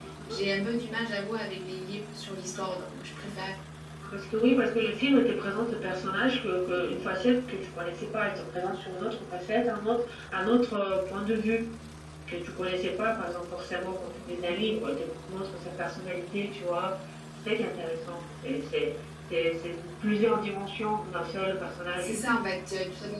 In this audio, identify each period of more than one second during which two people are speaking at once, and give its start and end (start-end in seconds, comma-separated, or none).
none